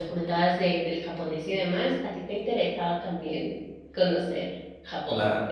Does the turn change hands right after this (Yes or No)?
Yes